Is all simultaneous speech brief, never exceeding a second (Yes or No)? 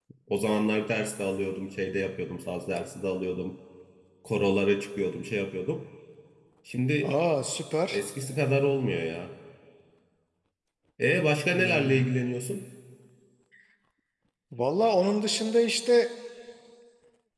Yes